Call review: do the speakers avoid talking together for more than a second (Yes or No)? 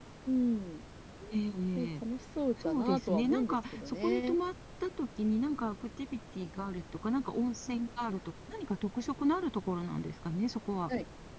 No